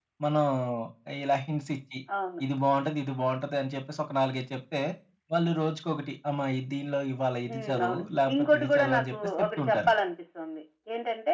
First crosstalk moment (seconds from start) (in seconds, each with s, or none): 7.5 s